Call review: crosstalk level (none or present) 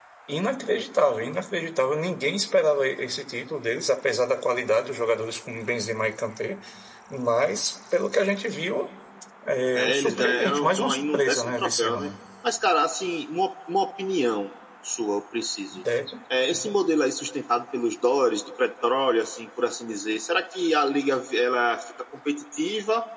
present